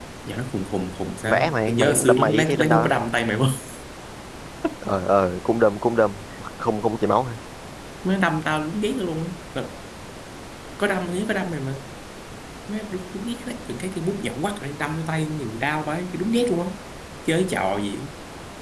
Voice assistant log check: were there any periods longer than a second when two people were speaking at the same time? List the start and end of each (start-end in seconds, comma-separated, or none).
1.2-2.9